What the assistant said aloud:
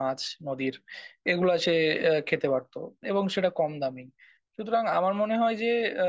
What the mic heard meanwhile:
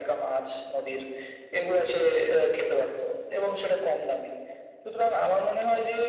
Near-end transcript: none

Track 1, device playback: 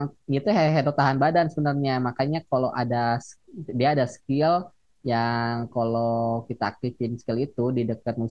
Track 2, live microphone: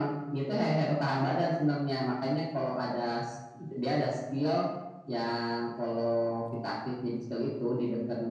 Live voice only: none

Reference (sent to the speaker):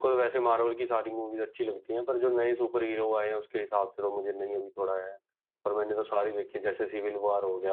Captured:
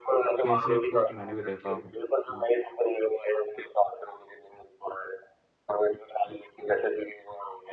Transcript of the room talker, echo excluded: केसरी टू तो मैंने भी देखा हम्म,

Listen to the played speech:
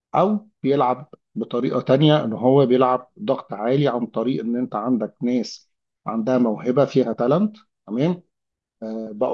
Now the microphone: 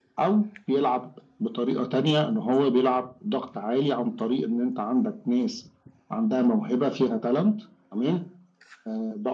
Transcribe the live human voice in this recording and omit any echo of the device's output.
none

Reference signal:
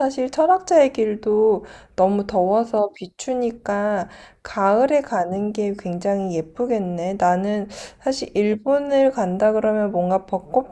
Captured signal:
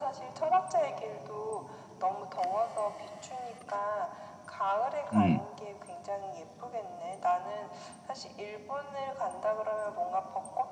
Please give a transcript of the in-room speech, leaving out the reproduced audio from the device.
음, 음,

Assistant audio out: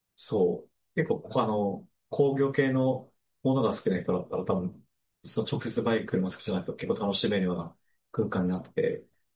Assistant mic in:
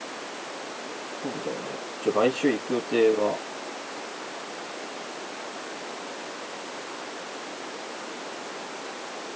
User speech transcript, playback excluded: そうだよね。ちょ、来週行く予定が、

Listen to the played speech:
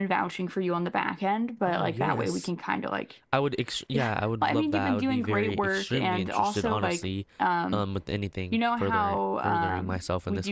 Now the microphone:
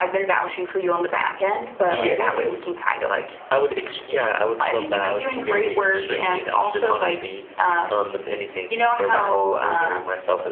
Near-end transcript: Yes.

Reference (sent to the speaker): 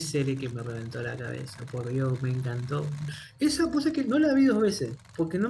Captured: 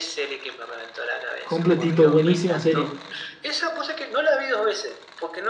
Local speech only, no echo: Completito, buenísima serie.

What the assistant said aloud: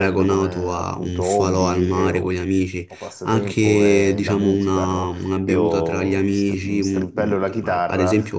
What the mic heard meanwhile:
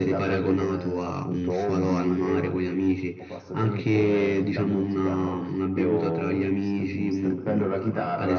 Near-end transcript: none

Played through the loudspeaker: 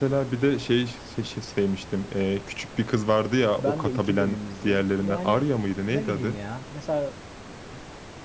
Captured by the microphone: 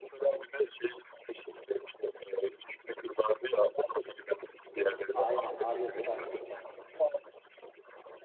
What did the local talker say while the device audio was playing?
Aynen Arya Stark.

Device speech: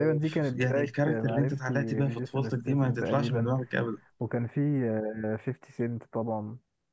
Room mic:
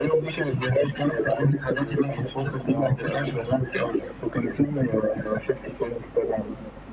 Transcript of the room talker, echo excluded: اه

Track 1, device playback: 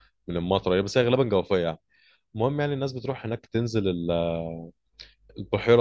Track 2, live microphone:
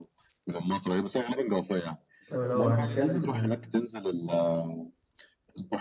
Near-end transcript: طب لو هنتكلم

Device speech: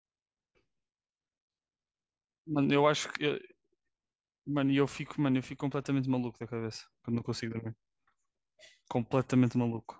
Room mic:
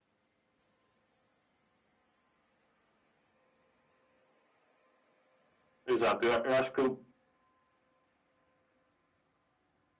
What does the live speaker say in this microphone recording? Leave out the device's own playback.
Exato, eu, eu acho que

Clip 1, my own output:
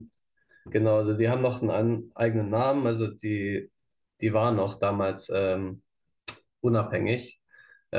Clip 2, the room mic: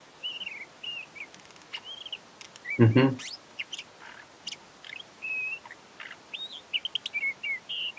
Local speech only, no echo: Mhm,

